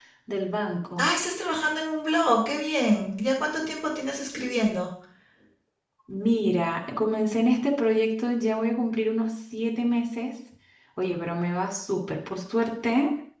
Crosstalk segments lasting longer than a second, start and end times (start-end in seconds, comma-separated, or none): none